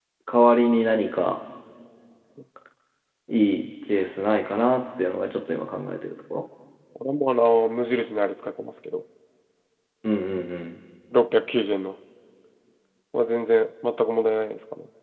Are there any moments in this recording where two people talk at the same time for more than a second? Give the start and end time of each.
none

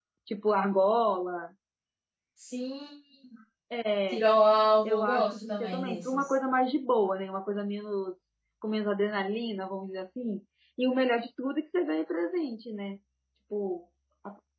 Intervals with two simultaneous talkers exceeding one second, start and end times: 4.8-6.3

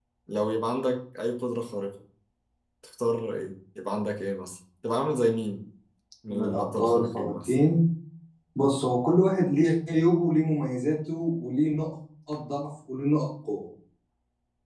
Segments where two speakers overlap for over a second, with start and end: 6.3-7.5

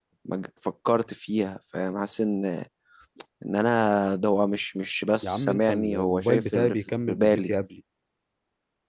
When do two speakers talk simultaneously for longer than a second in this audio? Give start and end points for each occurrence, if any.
5.2-7.5

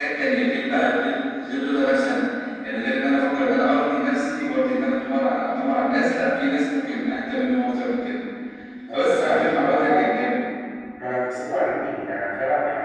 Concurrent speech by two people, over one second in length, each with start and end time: 8.9-10.1

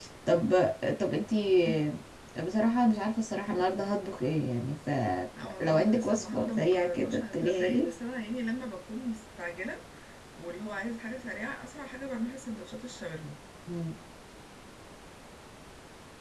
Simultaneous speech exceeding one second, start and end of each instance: 5.4-7.9

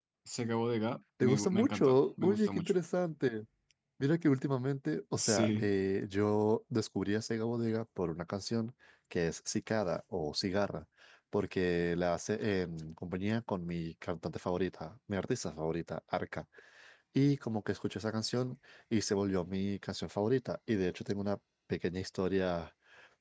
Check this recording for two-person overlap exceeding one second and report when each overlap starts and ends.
1.2-2.7

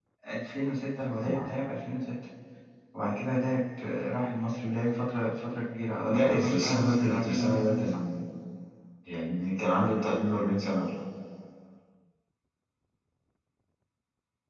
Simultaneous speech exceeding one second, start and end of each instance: 6.1-8.0

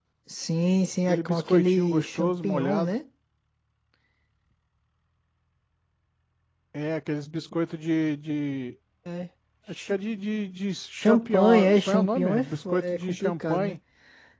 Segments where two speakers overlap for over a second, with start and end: 1.1-2.9, 10.9-13.8

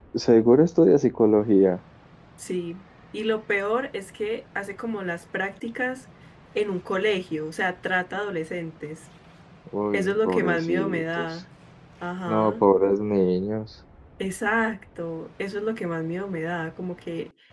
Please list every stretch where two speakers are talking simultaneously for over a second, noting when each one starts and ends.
9.9-11.3

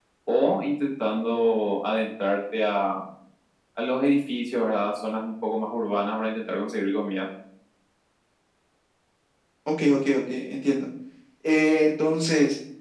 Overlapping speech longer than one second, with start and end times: none

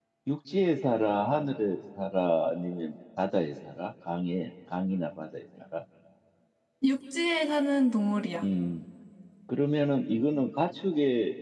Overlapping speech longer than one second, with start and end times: none

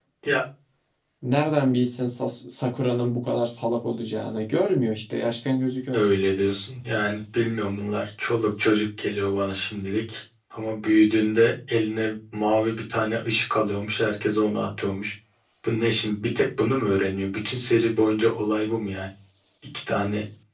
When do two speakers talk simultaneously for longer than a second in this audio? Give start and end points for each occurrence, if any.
none

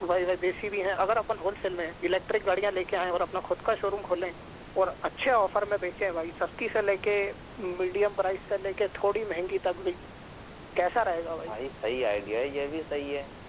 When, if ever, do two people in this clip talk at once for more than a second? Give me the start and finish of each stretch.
none

